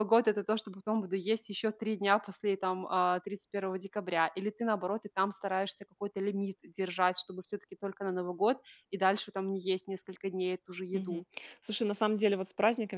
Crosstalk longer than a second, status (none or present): none